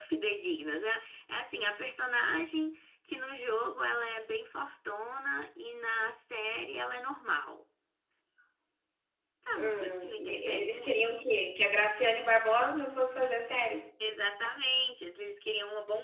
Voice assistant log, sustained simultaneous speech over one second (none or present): present